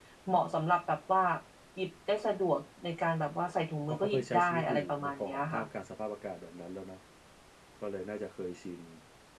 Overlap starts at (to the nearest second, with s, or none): 4 s